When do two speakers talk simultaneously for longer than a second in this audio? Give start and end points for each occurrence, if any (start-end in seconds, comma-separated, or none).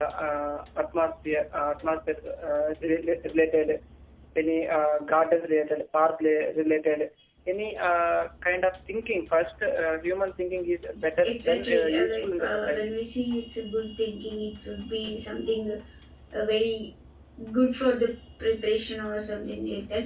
11.2-12.8